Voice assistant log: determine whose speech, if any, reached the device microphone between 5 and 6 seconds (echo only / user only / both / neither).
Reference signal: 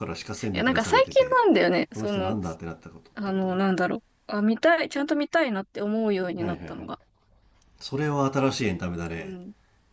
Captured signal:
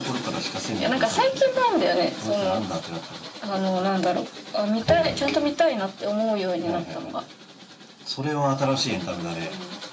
both